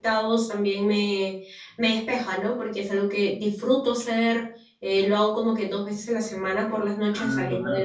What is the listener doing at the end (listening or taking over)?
listening